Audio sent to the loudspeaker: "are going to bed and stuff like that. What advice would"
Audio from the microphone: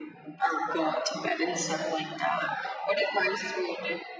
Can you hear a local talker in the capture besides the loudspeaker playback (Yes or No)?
No